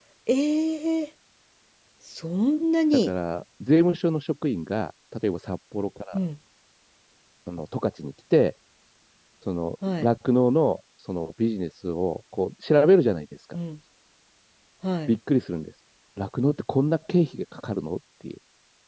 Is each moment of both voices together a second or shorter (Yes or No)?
Yes